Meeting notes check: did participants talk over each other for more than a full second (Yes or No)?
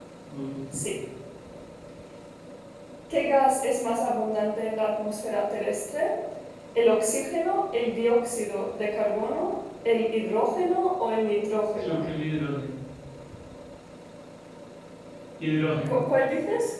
No